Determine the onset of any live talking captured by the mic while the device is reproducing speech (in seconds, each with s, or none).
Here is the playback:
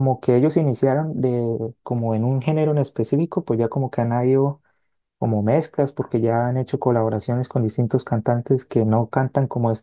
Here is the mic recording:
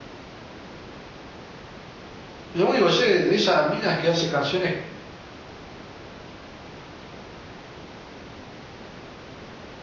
2.5 s